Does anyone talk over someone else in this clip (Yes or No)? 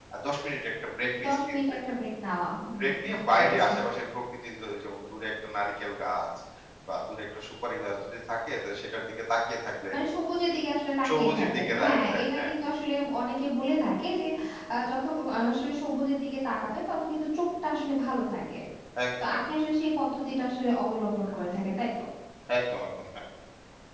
Yes